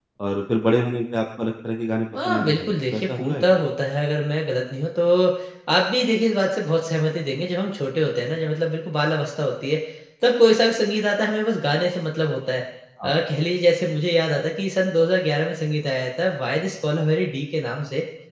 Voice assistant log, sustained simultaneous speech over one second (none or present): present